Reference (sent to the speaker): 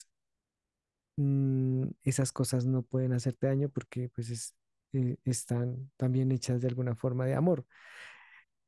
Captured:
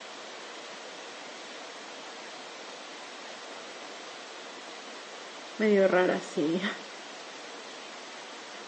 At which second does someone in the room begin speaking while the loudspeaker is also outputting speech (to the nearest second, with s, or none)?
6 s